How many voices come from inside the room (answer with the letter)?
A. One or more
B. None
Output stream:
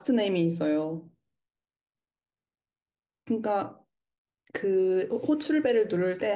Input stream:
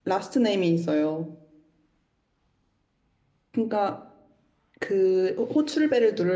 B